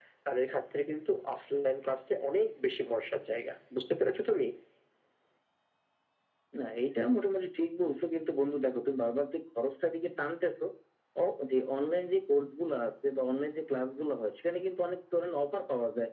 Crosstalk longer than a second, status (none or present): none